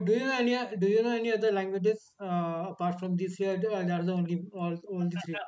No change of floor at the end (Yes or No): No